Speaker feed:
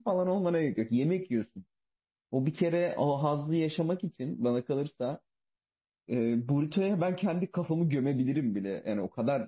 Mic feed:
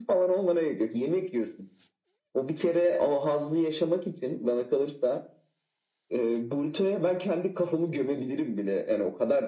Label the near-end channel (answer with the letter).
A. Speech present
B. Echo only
B